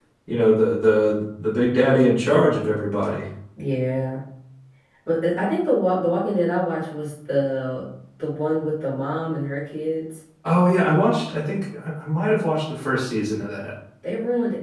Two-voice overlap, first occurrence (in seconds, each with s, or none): none